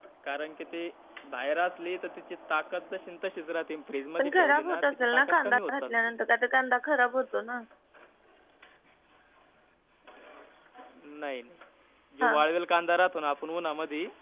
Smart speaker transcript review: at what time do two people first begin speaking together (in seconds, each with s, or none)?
4.2 s